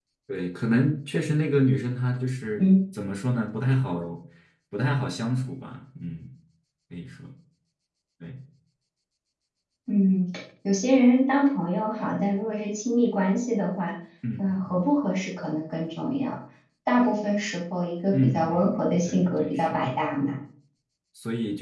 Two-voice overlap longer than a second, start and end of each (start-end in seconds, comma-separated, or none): 18.1-19.9